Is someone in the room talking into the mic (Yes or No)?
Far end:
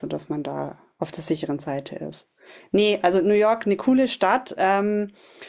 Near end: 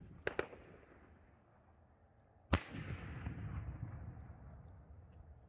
No